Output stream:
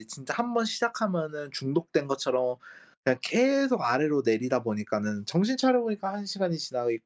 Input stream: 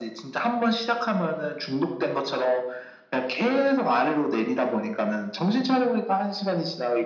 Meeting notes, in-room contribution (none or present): none